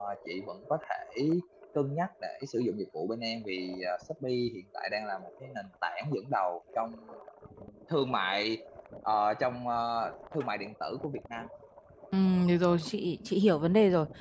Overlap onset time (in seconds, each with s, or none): none